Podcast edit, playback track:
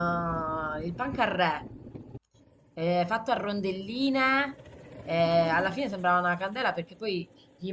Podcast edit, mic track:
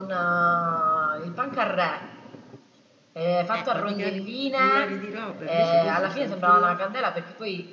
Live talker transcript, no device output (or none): Eh, ma ti carichi il cellulare di roba, invece questo sta tutto là.